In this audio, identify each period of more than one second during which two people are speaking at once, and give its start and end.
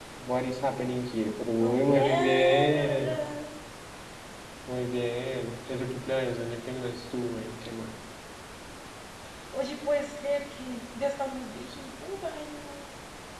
1.6-3.2

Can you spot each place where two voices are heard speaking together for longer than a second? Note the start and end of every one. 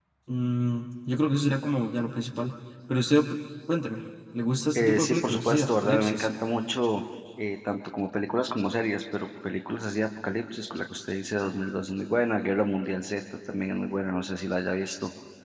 4.8-6.3

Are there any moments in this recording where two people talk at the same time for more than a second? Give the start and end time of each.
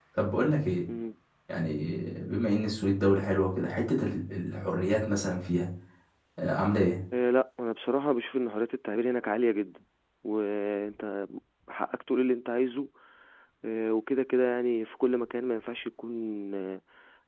none

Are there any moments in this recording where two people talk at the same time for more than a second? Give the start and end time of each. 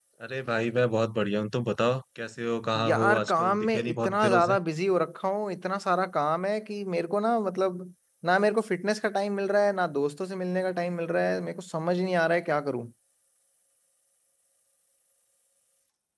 2.9-4.5

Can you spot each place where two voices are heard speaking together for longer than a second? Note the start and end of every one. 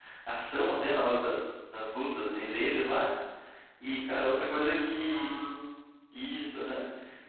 3.8-5.3

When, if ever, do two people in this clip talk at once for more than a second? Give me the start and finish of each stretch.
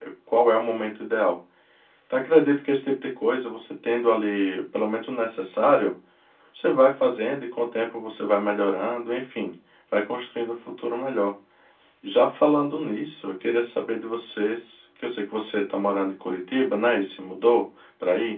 none

